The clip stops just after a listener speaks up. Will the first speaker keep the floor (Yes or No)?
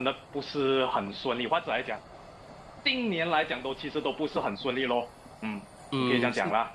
No